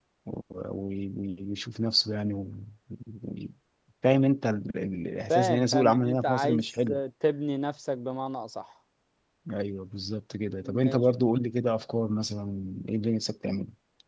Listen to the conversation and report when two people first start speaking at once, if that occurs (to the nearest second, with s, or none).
5 s